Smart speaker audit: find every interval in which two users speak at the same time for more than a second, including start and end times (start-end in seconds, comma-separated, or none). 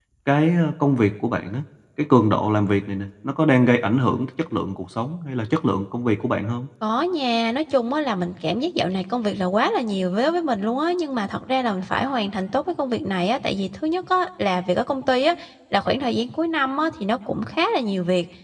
none